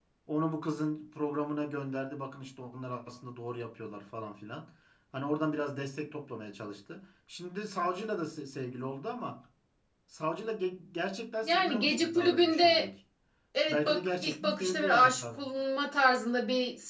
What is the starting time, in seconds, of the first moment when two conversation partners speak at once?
11 s

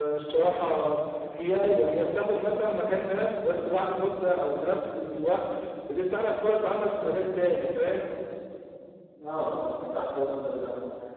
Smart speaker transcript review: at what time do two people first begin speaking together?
none

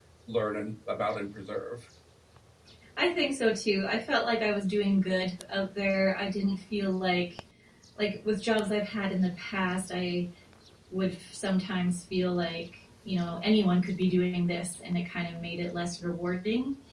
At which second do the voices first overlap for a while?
none

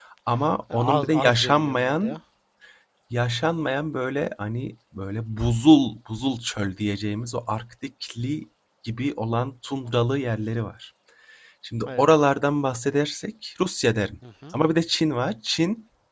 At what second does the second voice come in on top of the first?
1 s

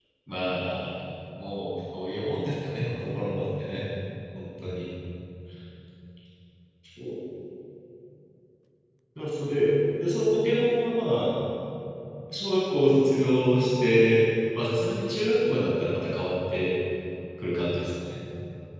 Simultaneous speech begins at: none

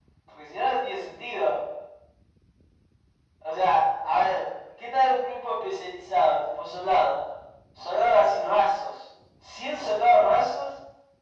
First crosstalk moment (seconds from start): none

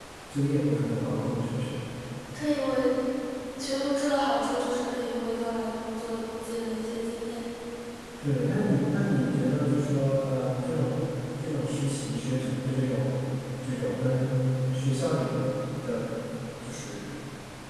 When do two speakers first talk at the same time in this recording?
none

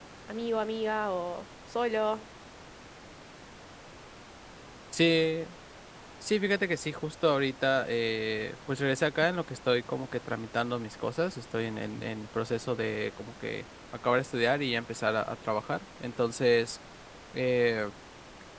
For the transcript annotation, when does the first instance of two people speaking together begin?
none

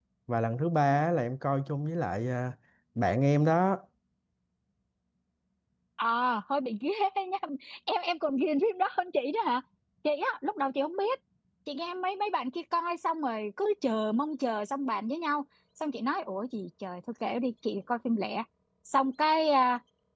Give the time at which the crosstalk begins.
none

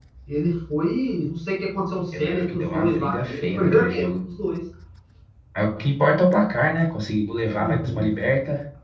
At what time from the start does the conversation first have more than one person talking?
2 s

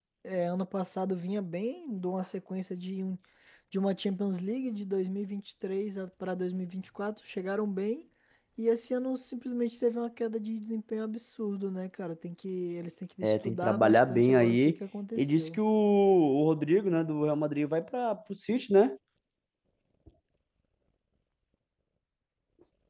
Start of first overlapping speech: 13 s

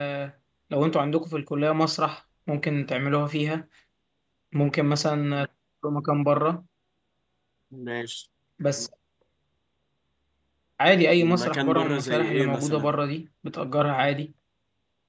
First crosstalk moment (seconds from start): 11 s

